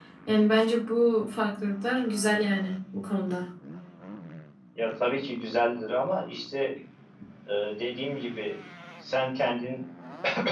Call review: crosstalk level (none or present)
none